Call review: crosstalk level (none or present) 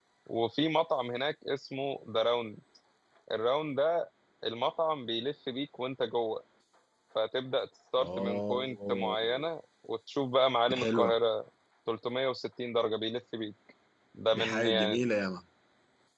present